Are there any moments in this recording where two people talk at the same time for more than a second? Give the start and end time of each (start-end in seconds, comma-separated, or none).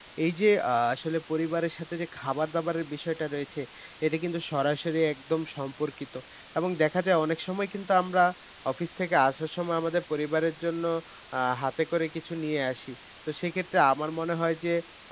none